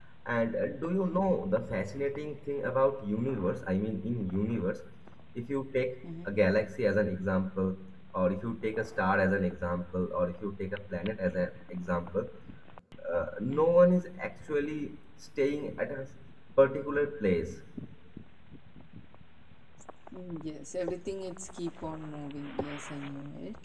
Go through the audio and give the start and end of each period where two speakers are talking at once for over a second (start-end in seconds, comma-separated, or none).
none